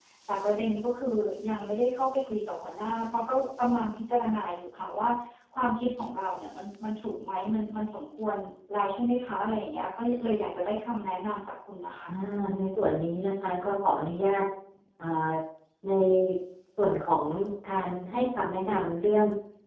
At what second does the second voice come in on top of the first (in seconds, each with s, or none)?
none